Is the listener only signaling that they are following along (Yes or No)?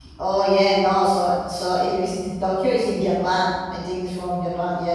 No